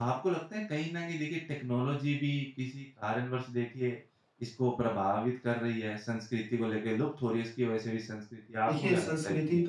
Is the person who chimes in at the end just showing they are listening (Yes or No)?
No